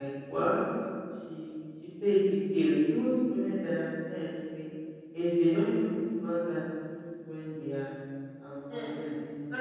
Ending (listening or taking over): taking over